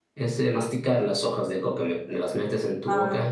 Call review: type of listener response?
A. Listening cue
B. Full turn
A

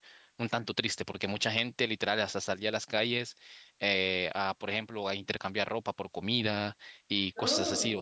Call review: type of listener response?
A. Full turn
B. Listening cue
B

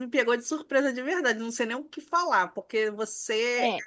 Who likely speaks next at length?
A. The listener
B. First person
B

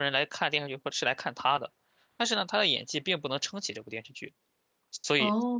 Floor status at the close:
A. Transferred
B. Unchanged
B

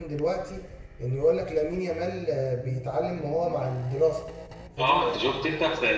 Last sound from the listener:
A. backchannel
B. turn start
B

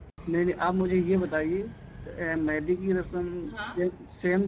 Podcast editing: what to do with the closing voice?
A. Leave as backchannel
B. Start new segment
A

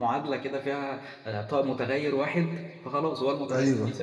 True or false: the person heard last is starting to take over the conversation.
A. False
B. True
A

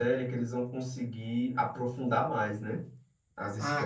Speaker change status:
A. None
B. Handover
B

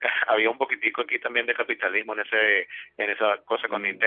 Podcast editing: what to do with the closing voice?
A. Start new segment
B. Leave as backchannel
B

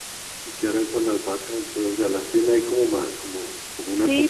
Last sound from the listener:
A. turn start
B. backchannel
A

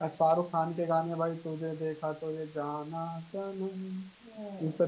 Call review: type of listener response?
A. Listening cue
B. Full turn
B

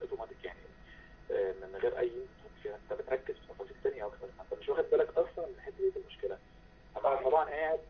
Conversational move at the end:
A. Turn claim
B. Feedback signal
B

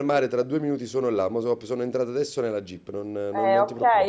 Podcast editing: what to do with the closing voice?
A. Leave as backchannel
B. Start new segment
B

